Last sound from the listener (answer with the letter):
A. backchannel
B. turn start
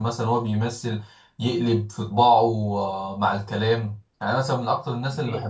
A